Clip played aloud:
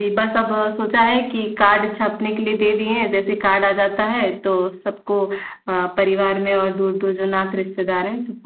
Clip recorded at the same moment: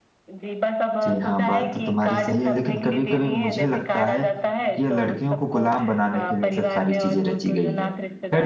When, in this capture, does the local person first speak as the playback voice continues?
1 s

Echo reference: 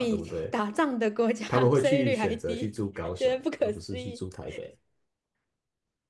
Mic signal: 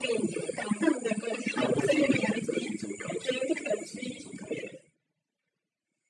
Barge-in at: none

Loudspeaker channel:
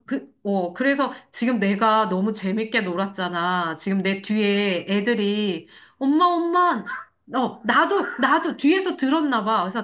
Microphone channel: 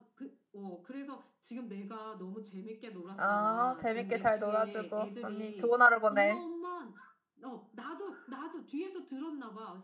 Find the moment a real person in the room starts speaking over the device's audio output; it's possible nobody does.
3 s

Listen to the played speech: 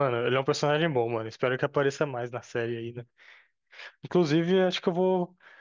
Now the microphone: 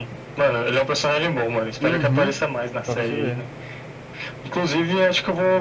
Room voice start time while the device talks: 2 s

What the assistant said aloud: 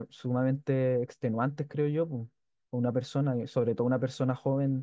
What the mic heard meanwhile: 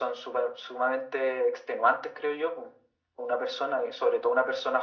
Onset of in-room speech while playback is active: none

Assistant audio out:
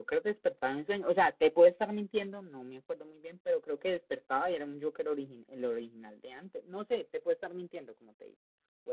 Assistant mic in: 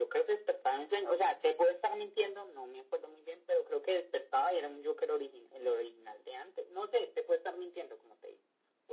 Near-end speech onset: none

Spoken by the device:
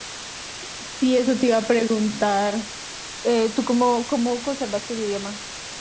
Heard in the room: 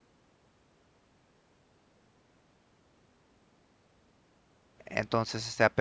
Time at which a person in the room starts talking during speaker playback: 5 s

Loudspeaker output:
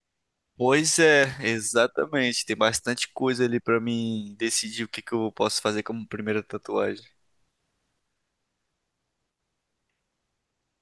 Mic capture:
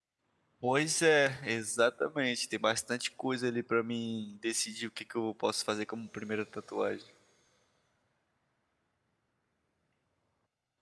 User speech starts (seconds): none

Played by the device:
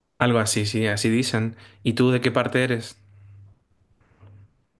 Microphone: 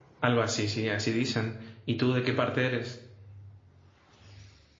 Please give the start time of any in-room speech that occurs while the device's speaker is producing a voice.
none

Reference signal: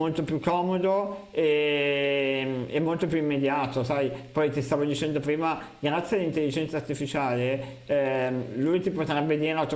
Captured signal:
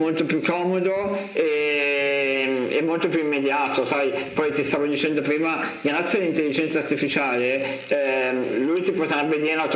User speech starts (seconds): none

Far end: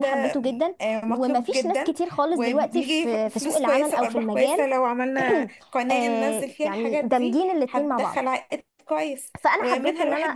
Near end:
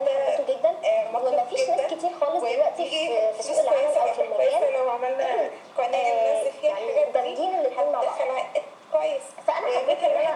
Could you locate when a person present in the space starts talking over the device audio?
none

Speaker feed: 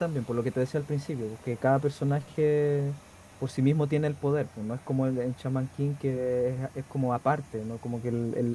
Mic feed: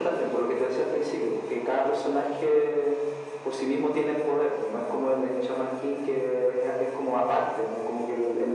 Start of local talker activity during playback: none

